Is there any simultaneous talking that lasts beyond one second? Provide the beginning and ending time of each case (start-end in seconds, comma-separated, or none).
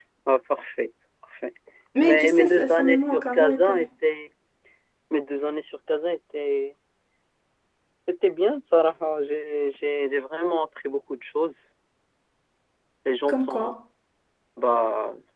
2.0-3.7